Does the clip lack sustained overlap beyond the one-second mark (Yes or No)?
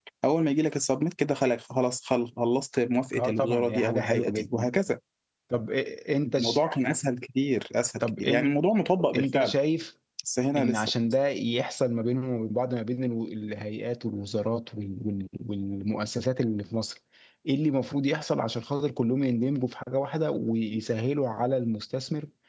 No